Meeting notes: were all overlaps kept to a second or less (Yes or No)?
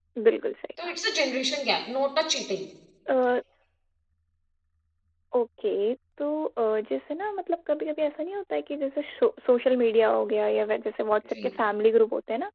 Yes